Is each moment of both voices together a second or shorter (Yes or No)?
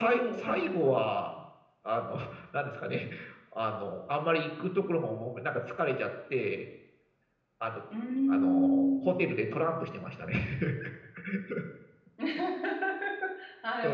No